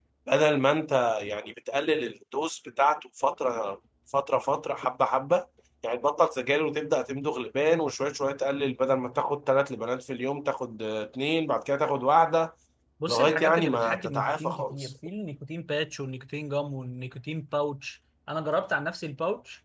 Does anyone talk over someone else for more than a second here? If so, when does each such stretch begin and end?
13.1-14.9

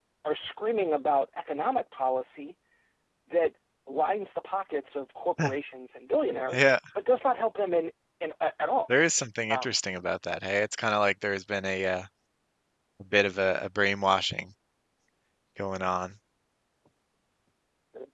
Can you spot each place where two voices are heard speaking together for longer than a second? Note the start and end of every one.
none

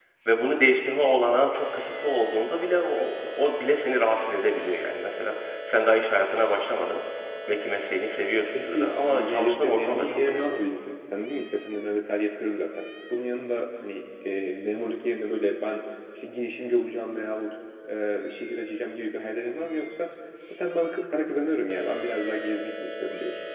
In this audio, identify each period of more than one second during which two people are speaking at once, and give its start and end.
8.6-10.6

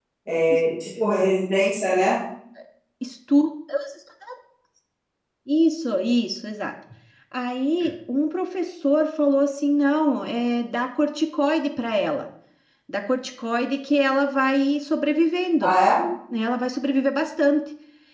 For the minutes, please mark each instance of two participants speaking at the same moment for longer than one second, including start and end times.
none

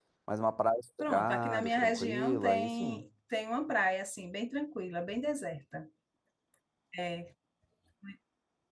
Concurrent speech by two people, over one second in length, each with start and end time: 1.0-3.0

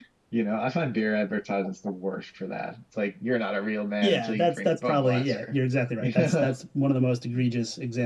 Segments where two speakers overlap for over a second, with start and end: 4.0-5.5

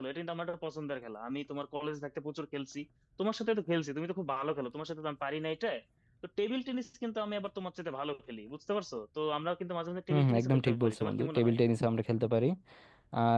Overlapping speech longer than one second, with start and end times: 10.1-11.5

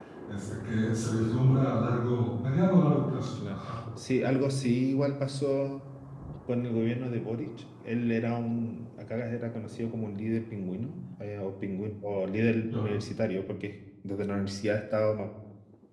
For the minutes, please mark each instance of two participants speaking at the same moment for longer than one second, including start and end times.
none

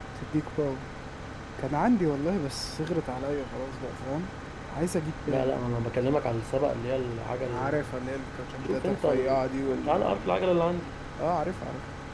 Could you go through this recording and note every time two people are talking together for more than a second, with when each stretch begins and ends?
8.6-10.2

